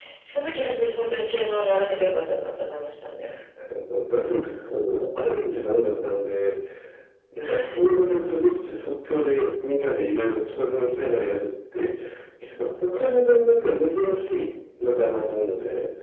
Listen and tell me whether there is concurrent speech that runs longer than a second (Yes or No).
No